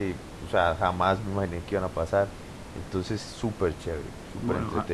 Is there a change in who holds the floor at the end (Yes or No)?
Yes